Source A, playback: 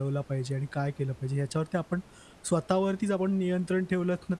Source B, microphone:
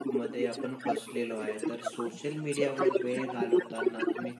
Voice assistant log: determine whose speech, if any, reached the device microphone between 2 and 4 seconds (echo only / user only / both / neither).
both